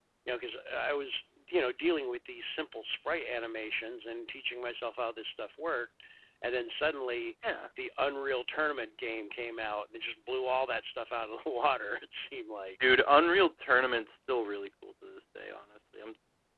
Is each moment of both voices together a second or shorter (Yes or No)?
Yes